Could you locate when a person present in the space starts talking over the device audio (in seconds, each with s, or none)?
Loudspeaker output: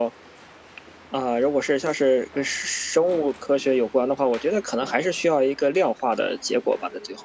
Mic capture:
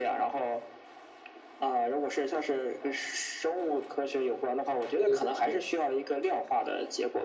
5.0 s